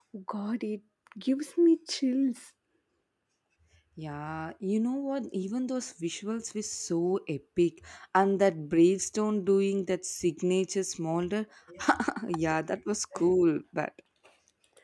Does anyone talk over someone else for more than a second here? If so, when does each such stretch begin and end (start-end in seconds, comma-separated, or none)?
none